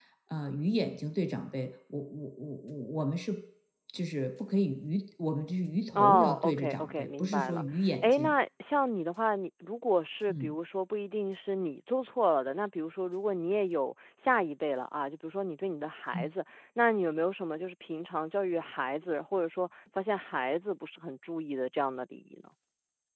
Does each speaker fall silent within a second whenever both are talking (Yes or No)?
No